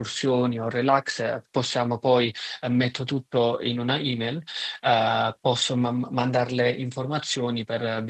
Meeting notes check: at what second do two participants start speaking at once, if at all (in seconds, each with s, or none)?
none